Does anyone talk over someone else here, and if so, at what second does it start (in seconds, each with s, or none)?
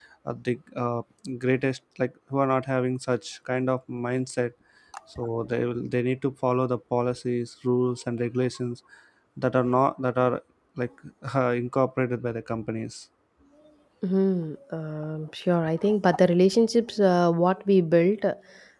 none